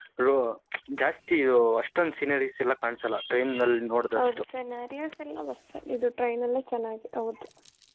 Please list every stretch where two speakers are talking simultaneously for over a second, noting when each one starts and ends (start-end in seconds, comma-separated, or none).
none